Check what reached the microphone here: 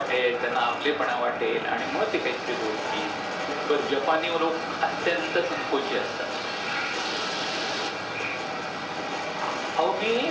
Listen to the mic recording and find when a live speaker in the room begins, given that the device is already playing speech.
none

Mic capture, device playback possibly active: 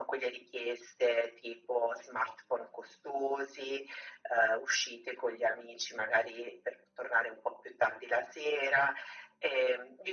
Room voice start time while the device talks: none

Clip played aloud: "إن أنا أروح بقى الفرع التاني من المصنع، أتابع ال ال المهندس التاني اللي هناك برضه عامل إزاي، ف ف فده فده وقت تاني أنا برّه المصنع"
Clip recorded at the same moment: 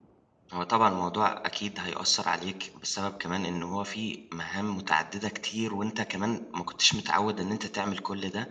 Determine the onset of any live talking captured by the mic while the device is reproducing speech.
0.5 s

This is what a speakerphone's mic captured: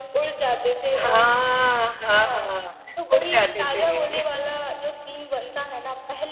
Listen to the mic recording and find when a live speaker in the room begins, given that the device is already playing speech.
0.9 s

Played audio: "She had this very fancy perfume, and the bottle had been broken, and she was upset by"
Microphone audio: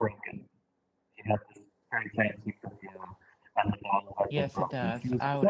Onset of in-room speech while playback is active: 4.3 s

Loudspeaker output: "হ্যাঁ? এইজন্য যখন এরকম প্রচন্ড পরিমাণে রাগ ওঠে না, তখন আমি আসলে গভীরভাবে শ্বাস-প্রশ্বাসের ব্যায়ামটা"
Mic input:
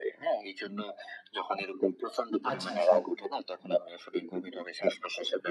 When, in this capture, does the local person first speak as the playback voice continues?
2.5 s

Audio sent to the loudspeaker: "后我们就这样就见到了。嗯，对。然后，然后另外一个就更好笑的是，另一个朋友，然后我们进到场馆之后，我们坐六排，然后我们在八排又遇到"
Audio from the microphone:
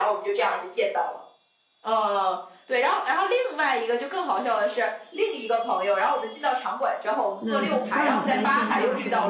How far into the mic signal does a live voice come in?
7.4 s

